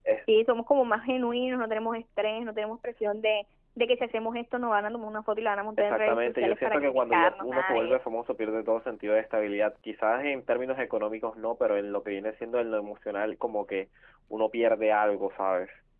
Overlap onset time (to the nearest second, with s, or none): 6 s